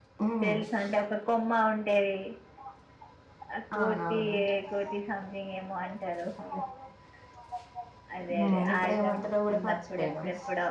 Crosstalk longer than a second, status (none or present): present